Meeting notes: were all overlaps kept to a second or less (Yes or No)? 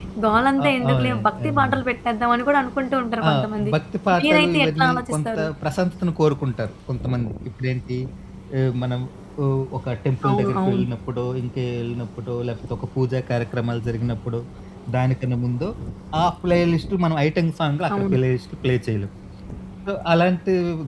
No